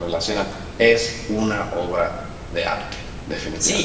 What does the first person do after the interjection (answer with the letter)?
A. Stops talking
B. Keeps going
A